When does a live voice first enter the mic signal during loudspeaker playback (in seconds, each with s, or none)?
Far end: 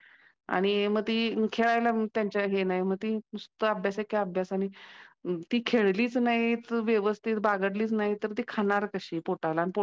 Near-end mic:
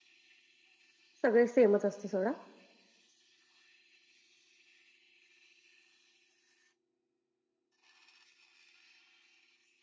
1.2 s